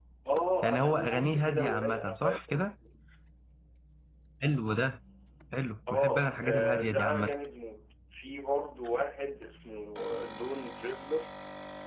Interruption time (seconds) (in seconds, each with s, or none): 0.6 s